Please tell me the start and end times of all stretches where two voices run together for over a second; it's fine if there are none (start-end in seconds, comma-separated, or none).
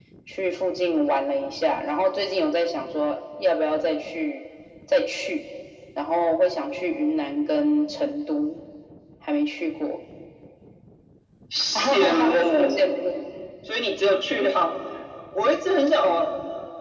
11.8-13.0